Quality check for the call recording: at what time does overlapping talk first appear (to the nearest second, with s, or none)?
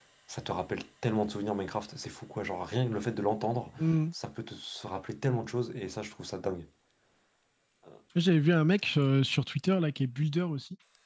none